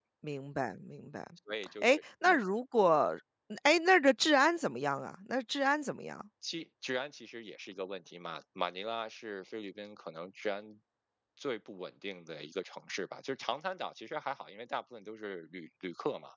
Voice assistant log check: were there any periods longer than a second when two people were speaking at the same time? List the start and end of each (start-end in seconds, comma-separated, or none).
none